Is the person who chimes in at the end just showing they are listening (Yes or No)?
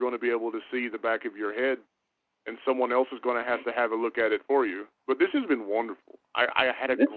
No